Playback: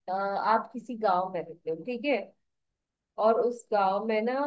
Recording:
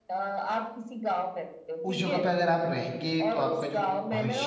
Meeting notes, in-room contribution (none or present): present